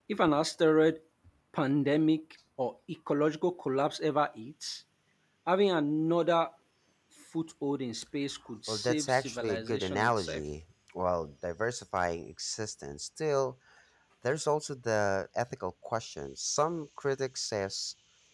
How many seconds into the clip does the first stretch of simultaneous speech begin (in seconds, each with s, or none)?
8.7 s